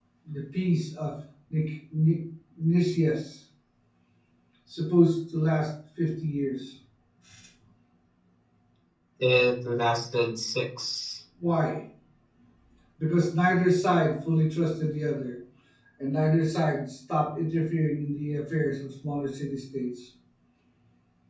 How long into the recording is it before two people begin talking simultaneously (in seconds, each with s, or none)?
none